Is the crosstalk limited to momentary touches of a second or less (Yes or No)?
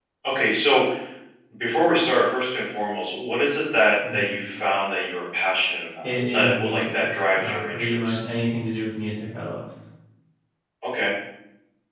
No